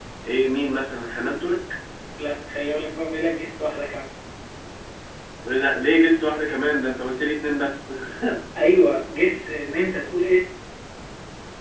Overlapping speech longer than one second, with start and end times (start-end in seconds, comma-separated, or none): none